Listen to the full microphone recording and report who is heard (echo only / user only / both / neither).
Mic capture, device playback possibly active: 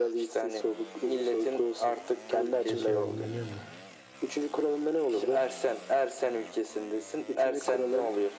both